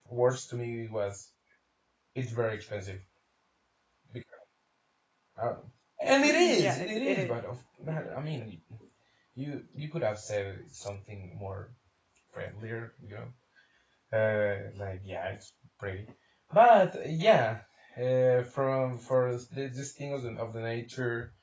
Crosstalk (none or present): present